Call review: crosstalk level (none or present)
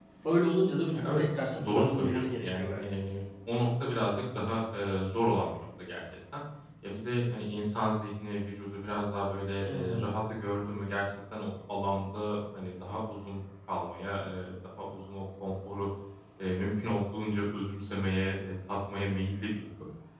present